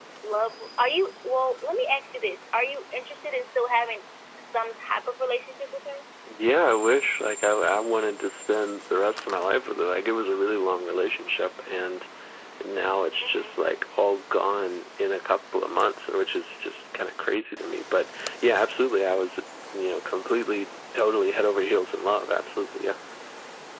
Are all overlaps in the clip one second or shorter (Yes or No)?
Yes